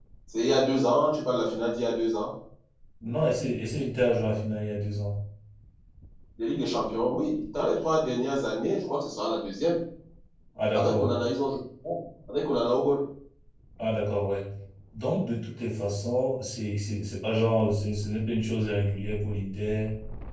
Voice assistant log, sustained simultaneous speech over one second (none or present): none